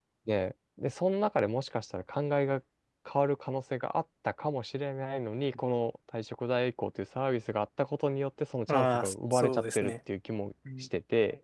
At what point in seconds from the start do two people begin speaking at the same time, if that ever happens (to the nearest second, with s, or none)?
9 s